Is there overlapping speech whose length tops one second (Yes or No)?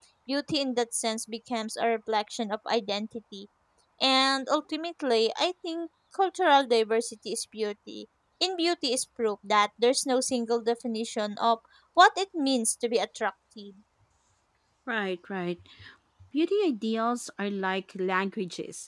No